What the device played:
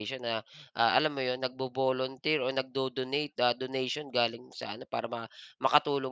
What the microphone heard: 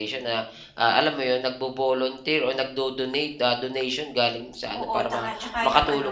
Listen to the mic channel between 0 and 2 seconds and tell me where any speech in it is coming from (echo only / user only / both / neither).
echo only